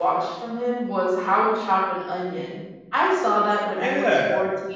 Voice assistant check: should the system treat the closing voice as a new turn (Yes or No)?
Yes